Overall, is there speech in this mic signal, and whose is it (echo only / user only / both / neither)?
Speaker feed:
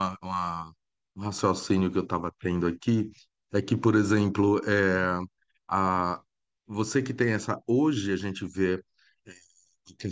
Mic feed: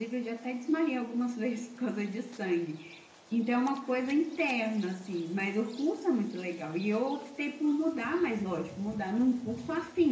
user only